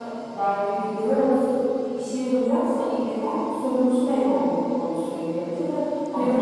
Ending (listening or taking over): taking over